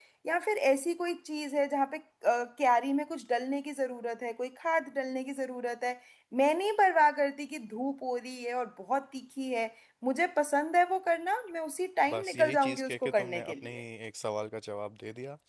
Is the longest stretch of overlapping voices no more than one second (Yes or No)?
No